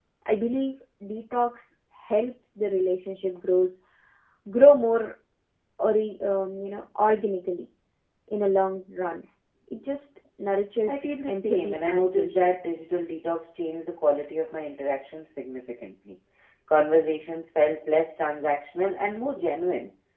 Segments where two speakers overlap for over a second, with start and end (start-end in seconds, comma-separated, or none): 10.9-12.5